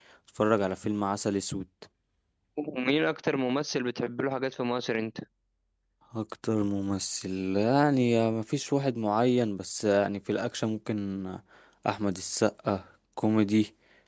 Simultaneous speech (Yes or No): No